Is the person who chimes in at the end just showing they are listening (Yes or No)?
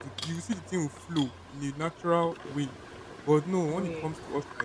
Yes